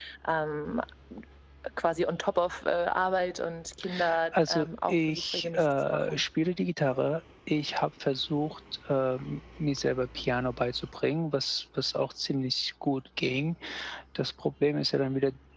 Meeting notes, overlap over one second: present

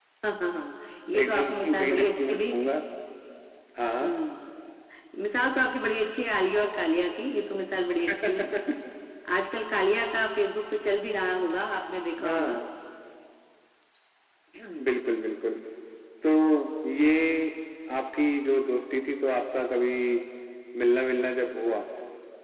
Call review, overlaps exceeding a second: present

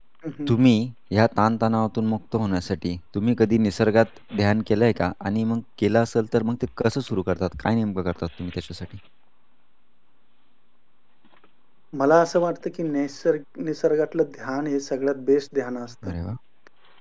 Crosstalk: none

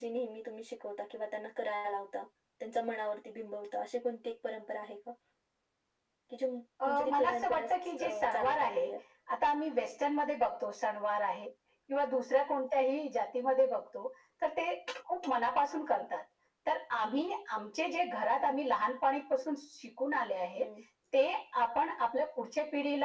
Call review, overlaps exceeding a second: present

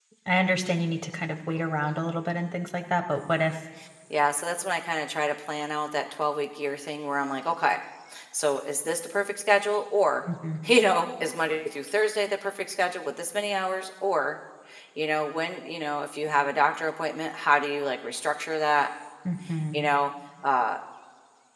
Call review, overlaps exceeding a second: none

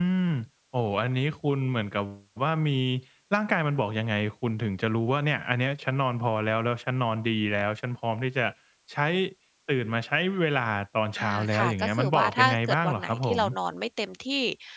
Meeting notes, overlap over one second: present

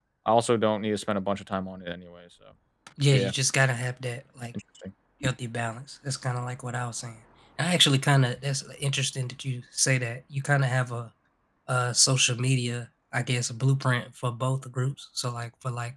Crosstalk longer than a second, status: none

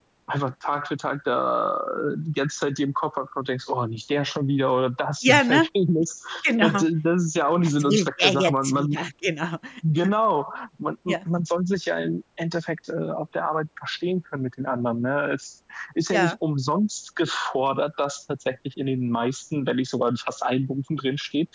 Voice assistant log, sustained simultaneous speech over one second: present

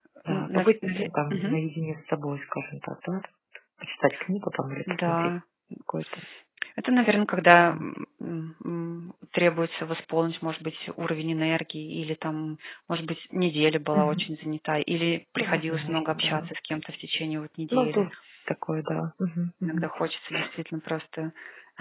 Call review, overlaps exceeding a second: present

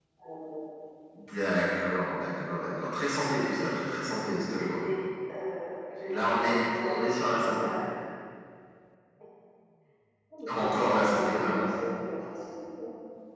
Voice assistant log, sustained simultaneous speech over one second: present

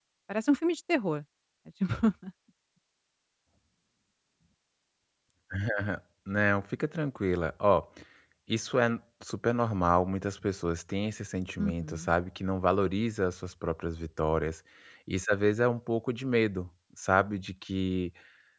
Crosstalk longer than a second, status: none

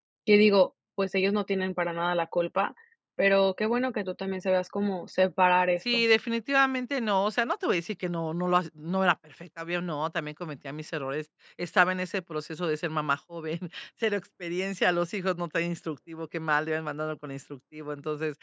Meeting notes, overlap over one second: none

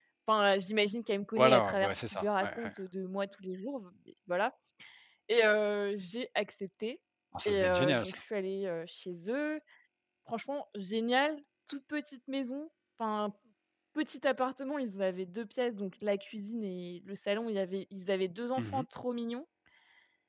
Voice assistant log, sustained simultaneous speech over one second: present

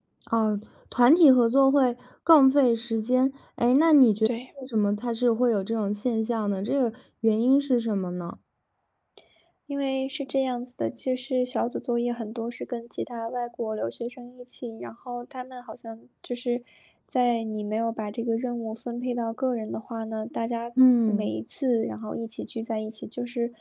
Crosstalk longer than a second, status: none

